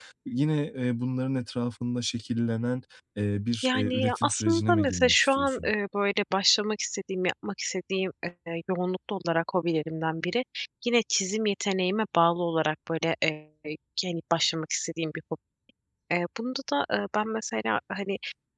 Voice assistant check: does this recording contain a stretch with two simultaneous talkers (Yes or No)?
Yes